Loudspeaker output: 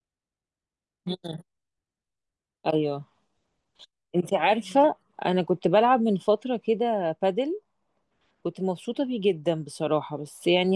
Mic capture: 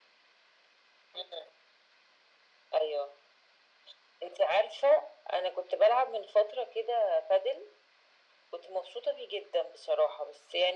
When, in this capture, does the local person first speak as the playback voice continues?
none

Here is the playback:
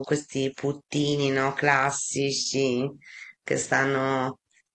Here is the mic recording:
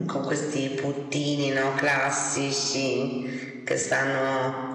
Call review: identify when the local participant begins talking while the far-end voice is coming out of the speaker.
none

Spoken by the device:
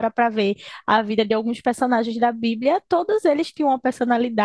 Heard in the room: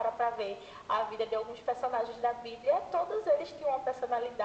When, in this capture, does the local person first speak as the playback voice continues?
none

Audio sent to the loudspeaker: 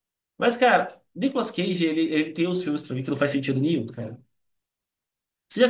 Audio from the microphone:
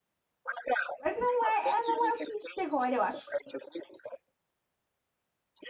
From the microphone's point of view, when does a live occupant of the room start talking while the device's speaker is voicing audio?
1.0 s

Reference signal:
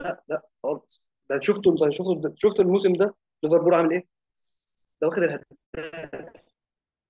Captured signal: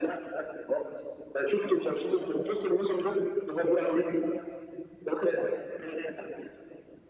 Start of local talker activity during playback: none

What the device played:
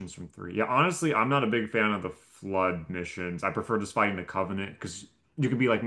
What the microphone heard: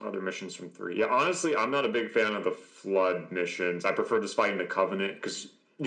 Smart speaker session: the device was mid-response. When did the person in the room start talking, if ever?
none

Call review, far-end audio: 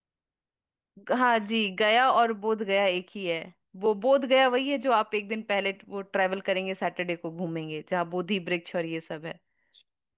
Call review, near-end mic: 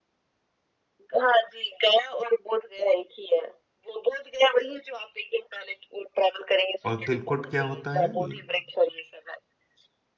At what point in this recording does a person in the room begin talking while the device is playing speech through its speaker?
6.9 s

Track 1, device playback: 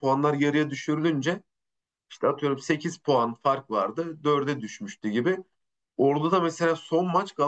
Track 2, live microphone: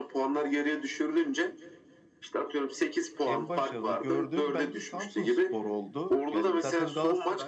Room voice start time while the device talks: 3.2 s

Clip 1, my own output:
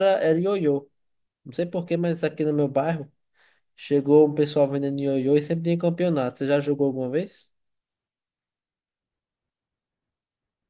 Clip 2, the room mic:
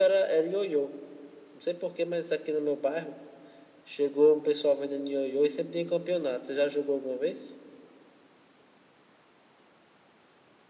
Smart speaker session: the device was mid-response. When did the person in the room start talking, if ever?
none

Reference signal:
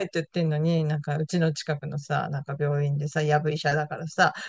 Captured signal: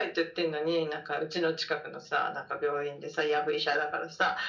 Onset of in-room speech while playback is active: none

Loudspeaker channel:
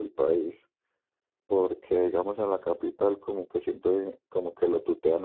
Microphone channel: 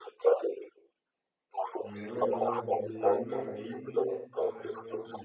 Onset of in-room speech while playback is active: 1.8 s

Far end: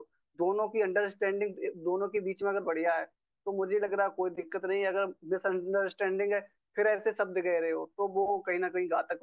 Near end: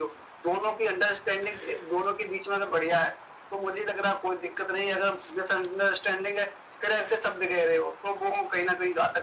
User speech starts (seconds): none

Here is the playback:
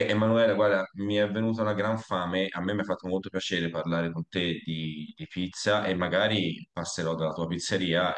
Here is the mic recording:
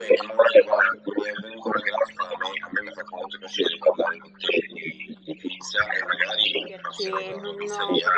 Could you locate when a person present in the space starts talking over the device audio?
6.6 s

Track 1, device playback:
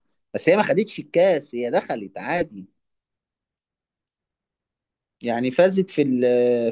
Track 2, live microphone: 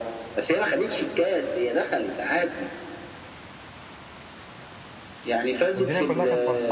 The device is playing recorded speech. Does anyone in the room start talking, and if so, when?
5.7 s

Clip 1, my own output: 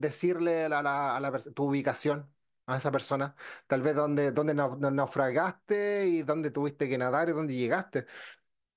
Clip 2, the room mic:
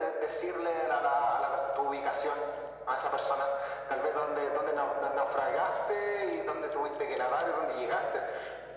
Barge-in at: none

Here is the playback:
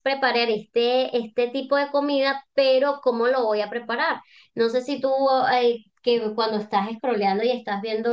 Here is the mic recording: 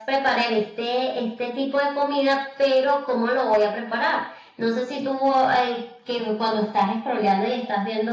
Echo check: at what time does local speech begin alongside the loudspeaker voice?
none

